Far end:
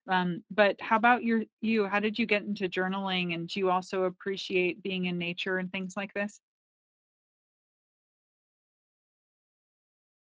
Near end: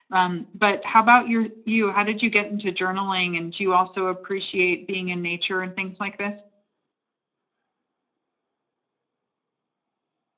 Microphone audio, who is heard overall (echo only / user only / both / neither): echo only